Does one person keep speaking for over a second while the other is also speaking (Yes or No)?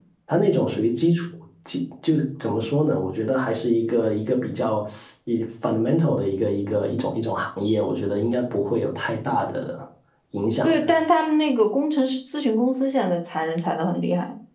No